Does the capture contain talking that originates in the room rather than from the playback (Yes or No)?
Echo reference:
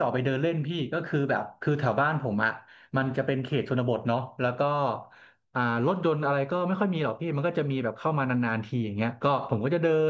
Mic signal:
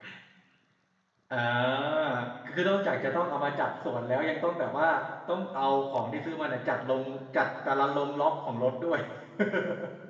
Yes